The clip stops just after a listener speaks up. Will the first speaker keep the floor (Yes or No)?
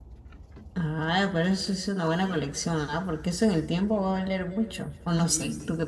No